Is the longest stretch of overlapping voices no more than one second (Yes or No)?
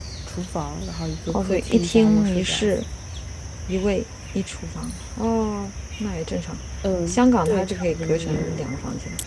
No